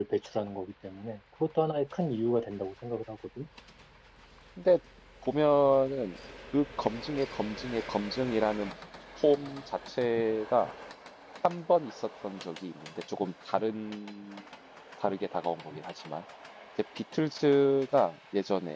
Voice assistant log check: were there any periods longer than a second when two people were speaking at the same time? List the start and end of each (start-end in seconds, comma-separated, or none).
none